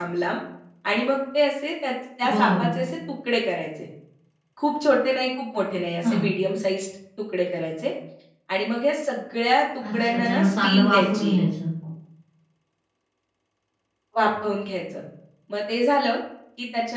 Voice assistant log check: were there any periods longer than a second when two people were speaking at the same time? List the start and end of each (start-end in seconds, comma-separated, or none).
9.8-11.4